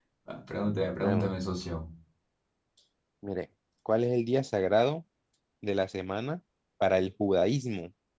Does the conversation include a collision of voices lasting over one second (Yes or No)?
No